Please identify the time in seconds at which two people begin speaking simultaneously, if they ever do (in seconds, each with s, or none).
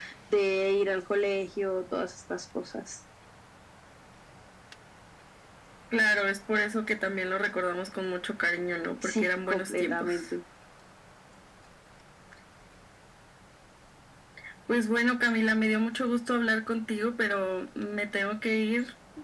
9.0 s